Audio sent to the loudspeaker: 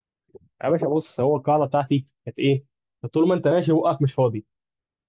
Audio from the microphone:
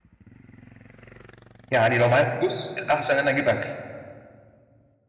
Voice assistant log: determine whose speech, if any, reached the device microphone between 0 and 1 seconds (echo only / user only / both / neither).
neither